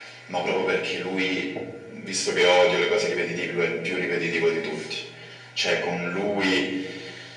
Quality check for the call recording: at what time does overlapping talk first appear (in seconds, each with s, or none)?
none